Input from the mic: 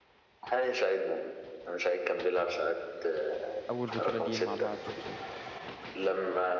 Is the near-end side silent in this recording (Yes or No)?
No